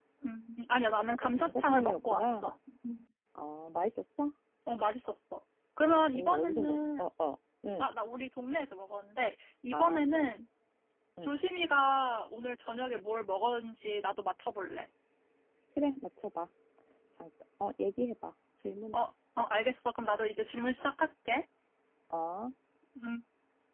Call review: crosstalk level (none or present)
present